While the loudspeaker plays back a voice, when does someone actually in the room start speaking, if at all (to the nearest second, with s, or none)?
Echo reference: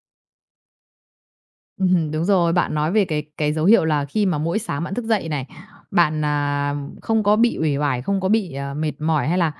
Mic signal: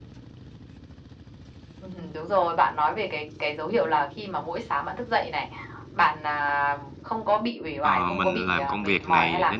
8 s